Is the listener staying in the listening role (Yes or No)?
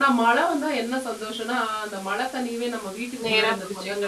Yes